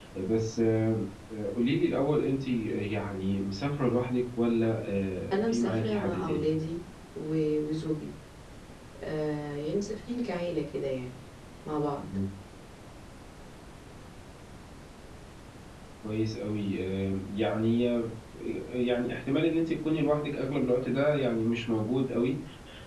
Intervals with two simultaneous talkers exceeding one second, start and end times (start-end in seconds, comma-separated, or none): 5.3-6.5